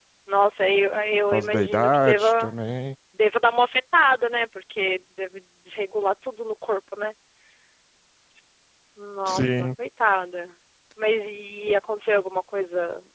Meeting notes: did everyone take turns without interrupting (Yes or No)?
No